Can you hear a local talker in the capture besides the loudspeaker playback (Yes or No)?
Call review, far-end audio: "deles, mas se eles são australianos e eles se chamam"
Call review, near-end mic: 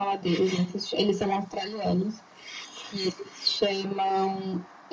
No